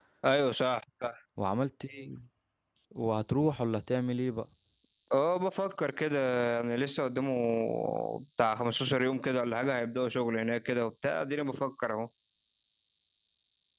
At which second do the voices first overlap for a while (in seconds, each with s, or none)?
none